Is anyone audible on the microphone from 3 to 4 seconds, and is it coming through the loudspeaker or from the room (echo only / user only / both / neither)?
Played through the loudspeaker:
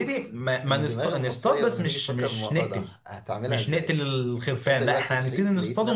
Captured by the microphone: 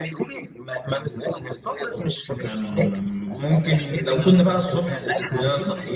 both